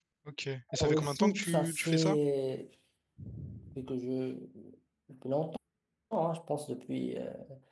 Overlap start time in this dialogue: 0.8 s

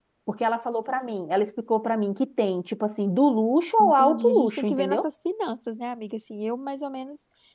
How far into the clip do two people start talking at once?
3.8 s

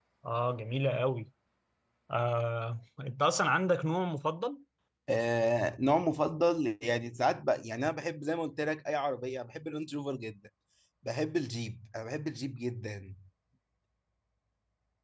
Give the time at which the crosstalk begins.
none

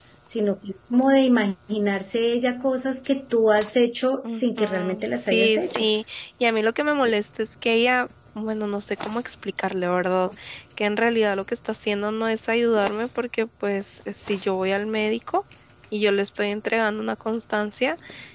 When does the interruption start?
4.2 s

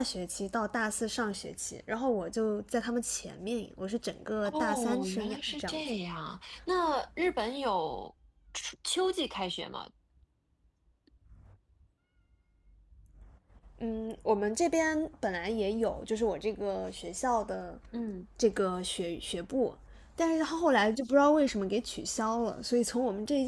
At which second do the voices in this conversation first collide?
4.4 s

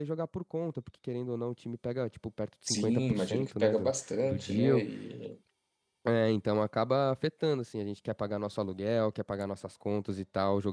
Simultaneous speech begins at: 2.7 s

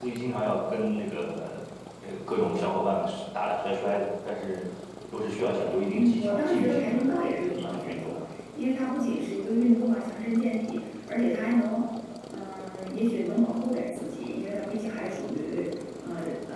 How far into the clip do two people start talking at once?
5.9 s

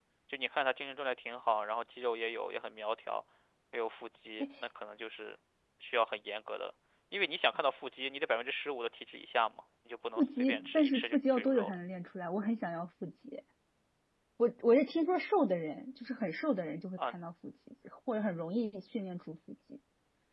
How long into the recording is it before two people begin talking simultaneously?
10.2 s

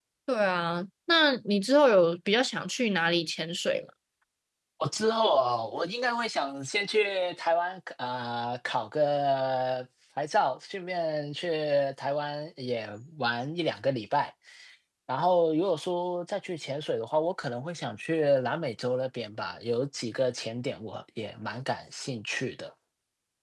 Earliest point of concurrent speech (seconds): none

